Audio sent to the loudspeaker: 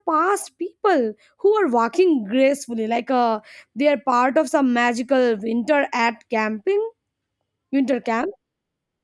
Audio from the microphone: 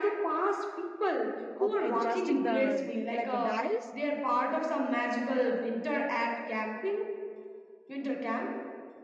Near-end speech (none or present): present